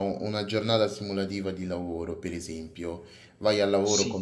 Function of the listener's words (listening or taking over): listening